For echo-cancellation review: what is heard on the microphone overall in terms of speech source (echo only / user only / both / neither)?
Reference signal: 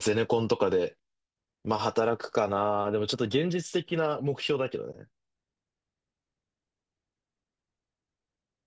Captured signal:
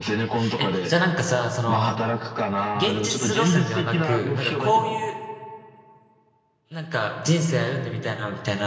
both